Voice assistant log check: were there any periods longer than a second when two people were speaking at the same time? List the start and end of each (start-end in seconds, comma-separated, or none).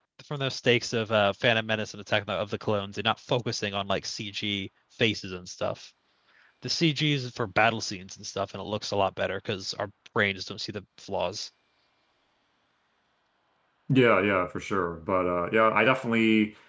none